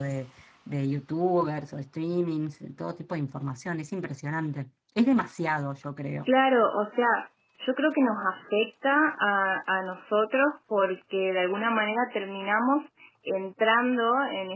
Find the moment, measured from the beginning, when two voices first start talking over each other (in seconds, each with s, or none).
none